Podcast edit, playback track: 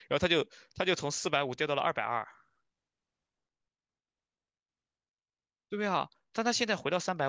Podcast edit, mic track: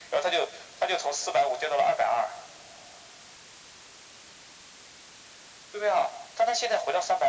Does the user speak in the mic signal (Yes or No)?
No